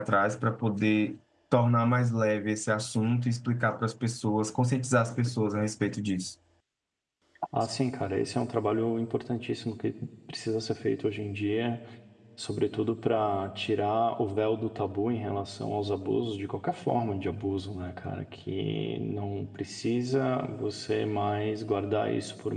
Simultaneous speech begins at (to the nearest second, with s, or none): none